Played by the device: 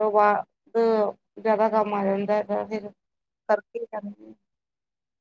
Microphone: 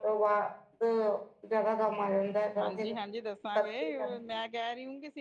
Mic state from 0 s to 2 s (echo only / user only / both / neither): echo only